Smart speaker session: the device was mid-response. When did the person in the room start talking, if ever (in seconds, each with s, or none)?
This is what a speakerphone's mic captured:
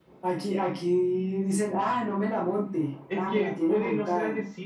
none